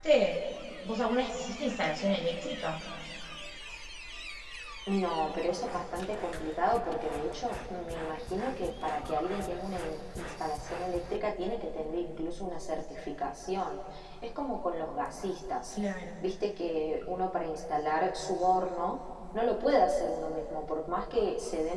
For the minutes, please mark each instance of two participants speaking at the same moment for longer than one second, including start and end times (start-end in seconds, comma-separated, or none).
none